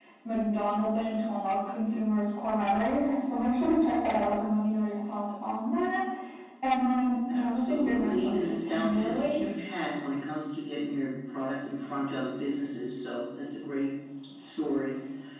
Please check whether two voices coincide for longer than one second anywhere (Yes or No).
Yes